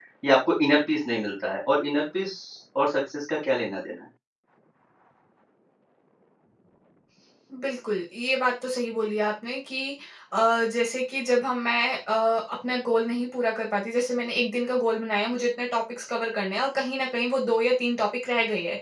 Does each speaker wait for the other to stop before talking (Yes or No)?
Yes